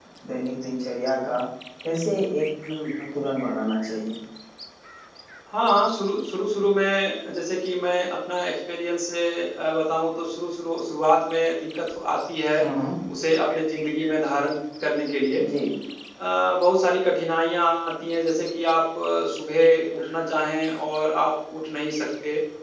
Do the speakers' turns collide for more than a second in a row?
No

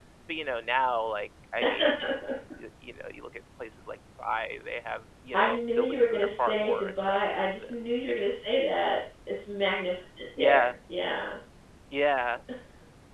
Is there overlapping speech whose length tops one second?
Yes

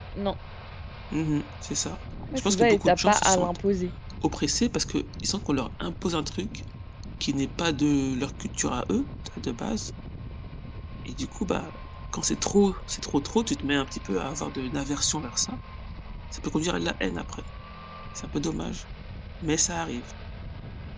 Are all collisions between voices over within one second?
No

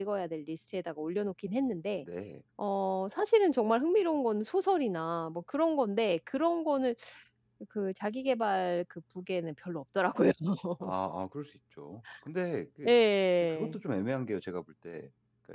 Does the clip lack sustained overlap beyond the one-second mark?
Yes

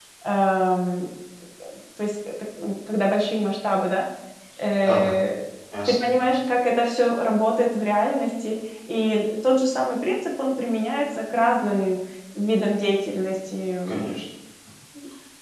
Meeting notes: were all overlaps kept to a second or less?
Yes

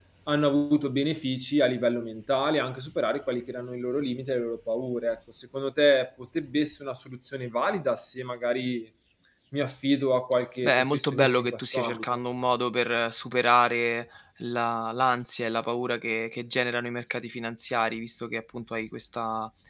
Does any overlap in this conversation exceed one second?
Yes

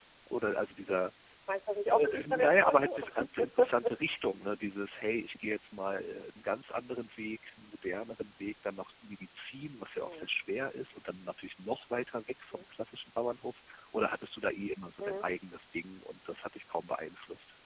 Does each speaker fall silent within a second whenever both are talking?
No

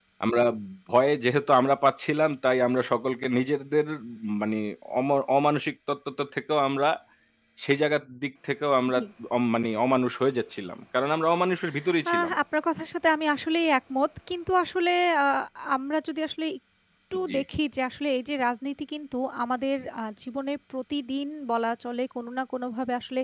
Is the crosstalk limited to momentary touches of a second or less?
Yes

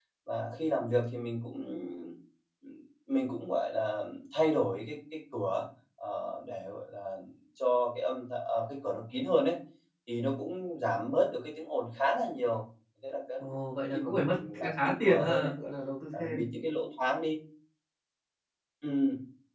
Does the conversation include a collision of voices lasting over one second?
Yes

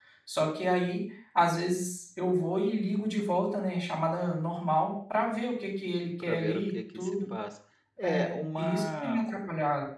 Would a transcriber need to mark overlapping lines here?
Yes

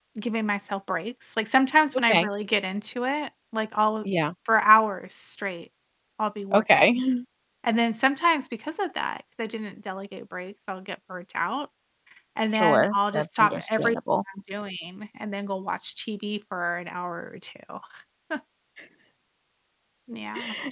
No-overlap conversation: No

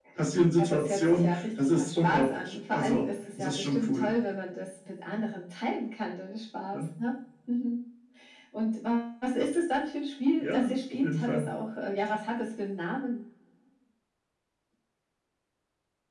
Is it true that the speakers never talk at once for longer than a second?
No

